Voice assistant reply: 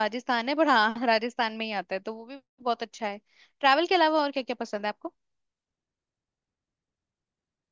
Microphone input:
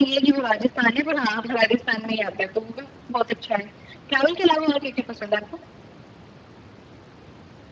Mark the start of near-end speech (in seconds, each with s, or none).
none